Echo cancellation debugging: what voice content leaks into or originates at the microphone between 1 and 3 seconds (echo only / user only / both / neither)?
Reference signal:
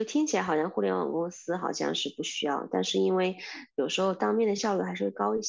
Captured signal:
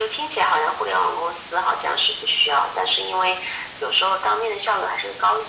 echo only